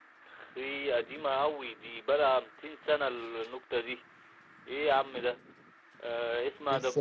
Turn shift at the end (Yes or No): No